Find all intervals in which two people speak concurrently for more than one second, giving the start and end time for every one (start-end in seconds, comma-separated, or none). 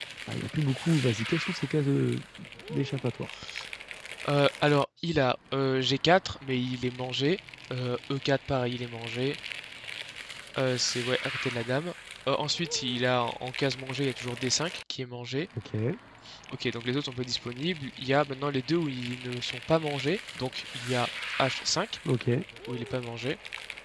none